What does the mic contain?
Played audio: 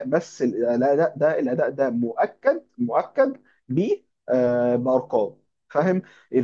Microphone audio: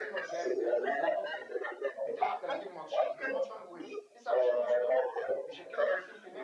both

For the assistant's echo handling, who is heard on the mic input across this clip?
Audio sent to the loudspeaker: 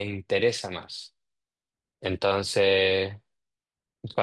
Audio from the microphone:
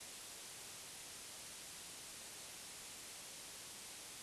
neither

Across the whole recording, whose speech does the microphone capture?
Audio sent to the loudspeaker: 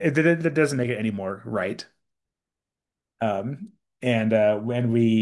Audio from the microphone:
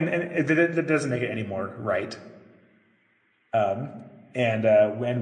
echo only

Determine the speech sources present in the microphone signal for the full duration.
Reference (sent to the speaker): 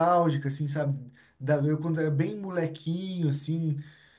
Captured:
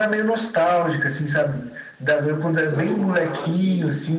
both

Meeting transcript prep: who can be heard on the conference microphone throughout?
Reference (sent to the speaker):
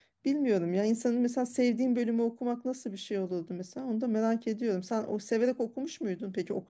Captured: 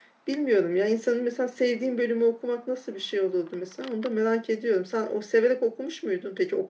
echo only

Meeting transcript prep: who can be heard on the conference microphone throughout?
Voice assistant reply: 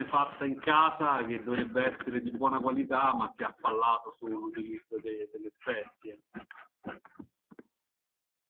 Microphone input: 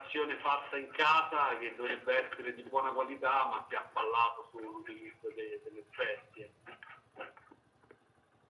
echo only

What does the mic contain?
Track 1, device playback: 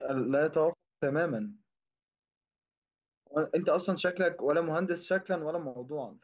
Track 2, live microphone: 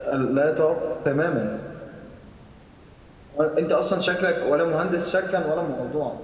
echo only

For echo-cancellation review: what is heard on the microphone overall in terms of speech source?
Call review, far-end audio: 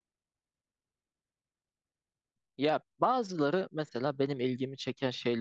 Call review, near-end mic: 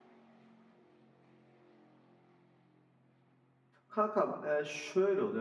user only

